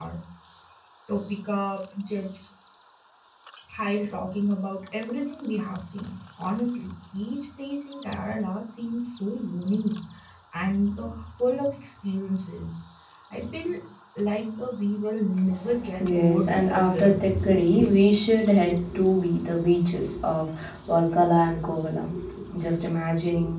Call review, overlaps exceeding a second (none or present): present